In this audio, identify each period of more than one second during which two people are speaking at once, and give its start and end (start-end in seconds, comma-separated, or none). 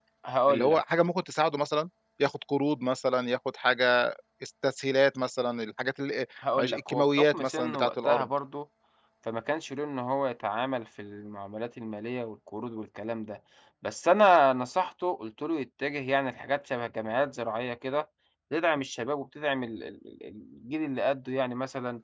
6.6-8.2